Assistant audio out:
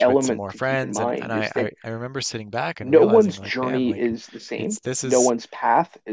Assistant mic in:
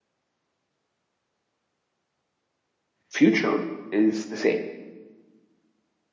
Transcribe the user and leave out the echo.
future is the same.

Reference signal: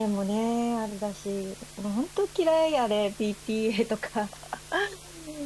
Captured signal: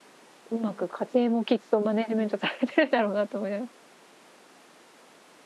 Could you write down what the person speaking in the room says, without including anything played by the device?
うまく家庭もきっとマネジメントされてるだろうなと思います

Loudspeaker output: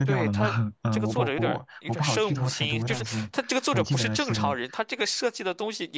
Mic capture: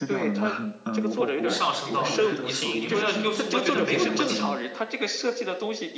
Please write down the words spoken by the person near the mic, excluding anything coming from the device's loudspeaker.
上升到，就是也宿，你会让又宿魔觉得没有那么强，

